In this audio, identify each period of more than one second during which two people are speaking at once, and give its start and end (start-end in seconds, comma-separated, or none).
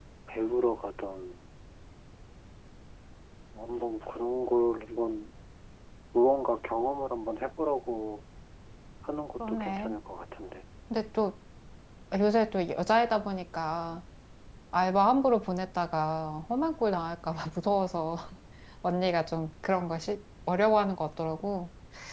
none